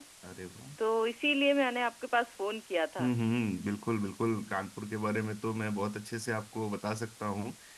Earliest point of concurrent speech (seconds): none

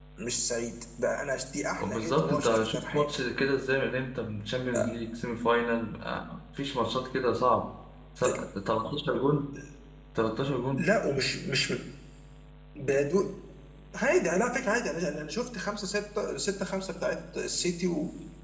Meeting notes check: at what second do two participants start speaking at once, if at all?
1.8 s

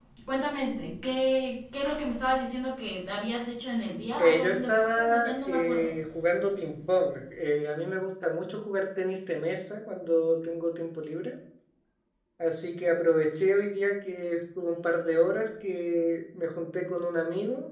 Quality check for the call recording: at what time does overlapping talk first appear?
4.2 s

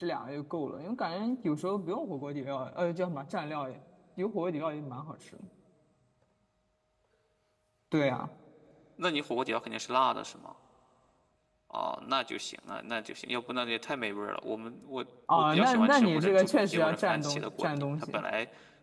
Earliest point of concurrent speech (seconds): 15.3 s

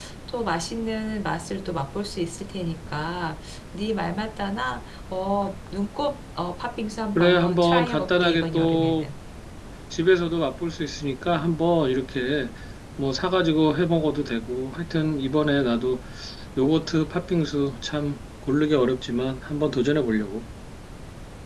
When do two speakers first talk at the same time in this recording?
7.2 s

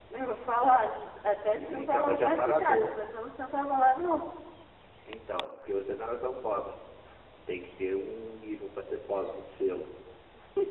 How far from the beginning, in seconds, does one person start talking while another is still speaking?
1.2 s

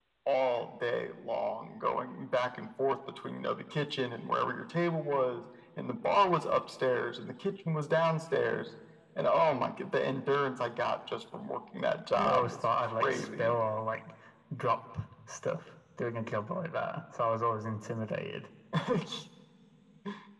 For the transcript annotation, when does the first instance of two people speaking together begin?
12.1 s

